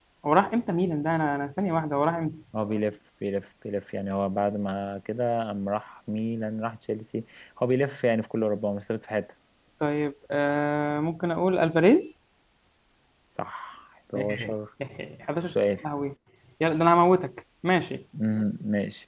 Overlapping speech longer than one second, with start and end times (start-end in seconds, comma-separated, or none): none